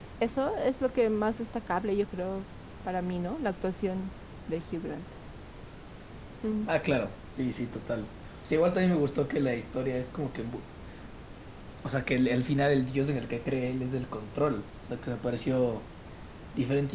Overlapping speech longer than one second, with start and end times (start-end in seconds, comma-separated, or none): none